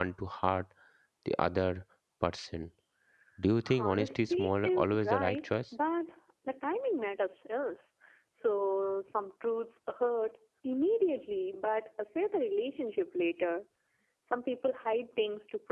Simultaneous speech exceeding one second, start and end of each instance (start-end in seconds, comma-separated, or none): 3.8-5.5